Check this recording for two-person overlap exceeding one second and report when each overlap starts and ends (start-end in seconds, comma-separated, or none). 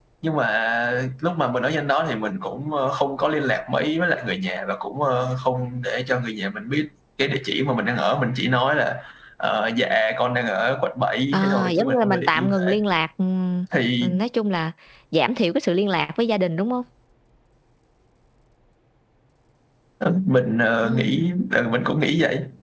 11.3-12.8